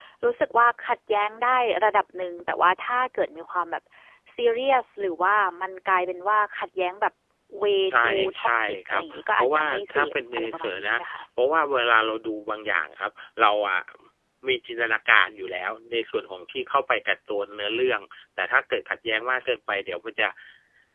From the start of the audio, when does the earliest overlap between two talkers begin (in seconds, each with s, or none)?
7.9 s